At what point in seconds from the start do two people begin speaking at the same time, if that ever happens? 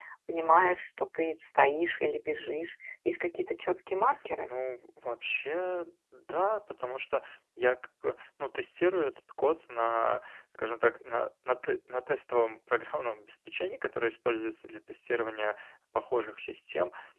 none

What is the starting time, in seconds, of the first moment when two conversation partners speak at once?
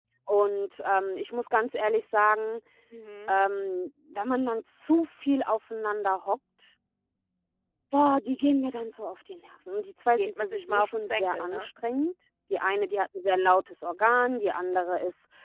10.2 s

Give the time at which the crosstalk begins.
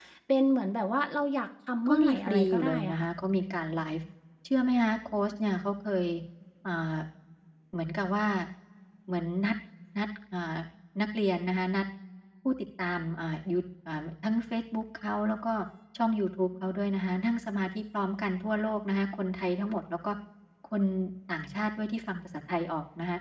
1.8 s

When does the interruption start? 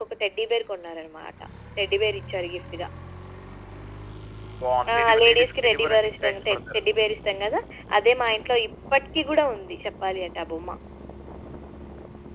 4.9 s

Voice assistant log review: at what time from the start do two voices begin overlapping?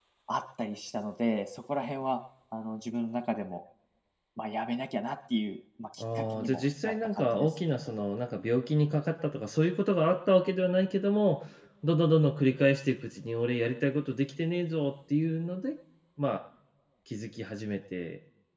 6.0 s

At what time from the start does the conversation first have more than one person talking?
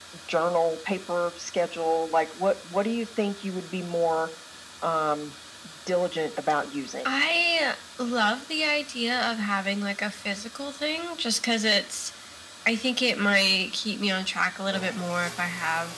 none

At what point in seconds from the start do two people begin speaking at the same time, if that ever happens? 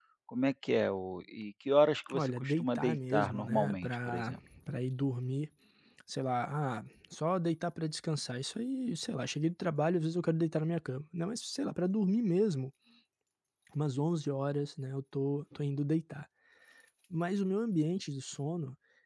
2.1 s

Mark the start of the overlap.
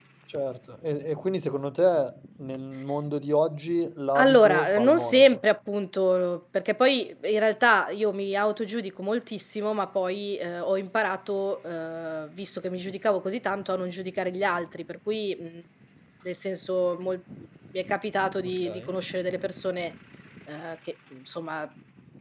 4.2 s

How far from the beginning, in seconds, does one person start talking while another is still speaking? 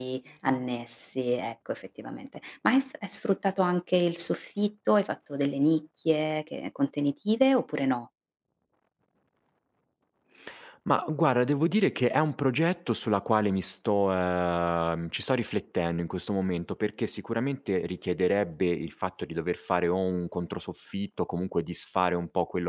none

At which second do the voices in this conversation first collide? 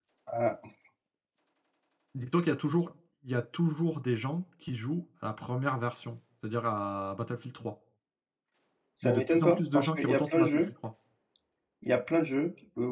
9.0 s

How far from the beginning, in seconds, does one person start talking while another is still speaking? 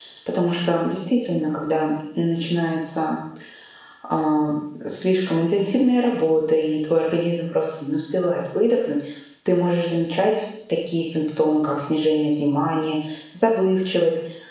none

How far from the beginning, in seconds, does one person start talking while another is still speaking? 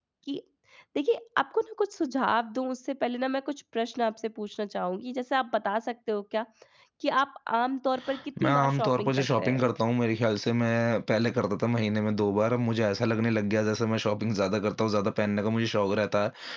8.4 s

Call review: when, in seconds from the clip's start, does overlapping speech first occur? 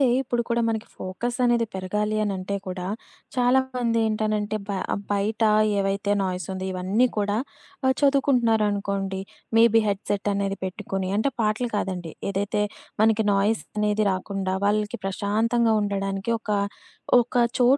none

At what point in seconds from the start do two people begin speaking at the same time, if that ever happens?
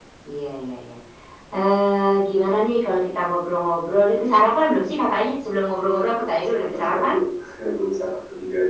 5.9 s

